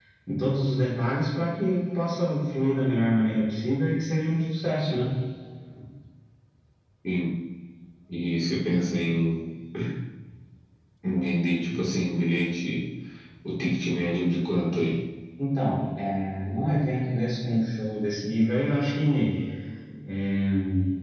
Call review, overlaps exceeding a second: none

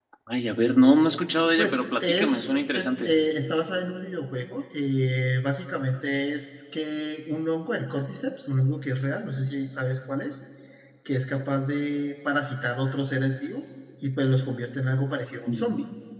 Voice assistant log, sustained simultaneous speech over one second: present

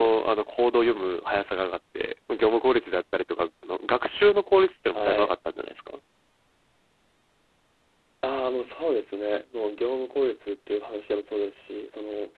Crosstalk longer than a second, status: none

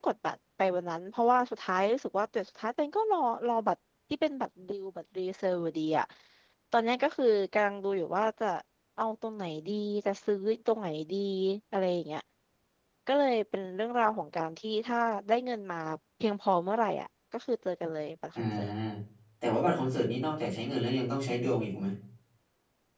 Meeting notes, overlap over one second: none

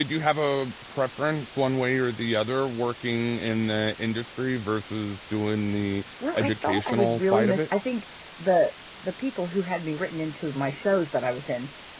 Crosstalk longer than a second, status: present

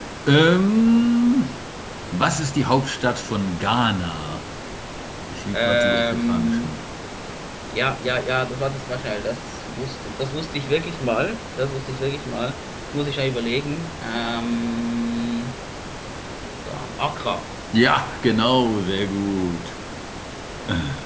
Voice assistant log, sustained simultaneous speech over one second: present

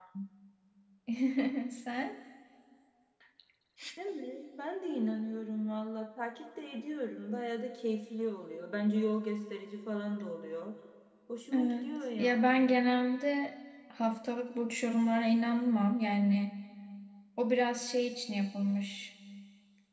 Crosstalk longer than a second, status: present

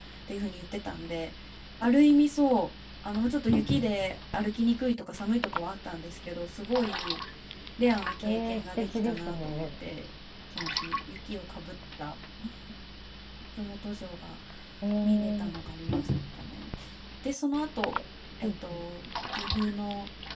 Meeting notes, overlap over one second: present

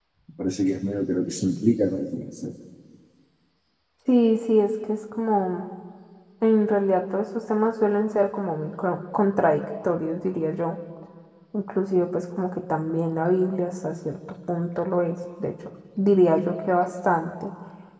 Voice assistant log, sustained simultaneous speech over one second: none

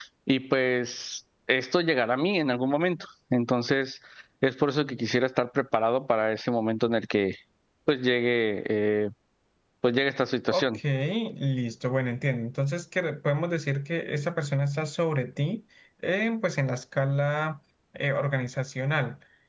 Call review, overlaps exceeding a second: none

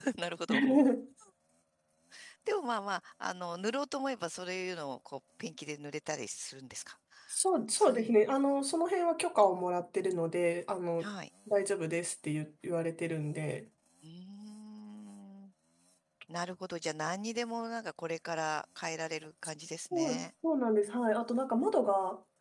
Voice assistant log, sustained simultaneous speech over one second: none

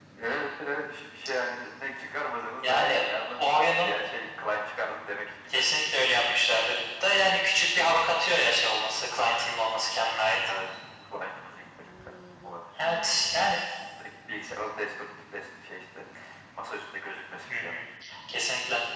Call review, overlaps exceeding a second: none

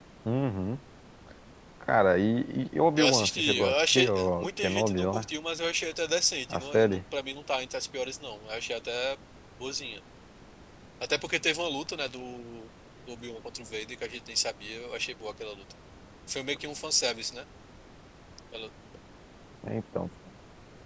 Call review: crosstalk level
present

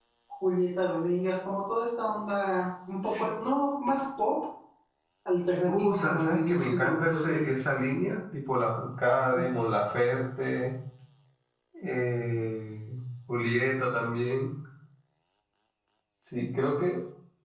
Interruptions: present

